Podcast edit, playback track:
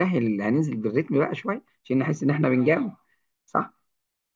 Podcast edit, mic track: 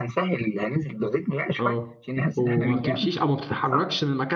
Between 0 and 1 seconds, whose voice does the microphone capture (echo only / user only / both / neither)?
echo only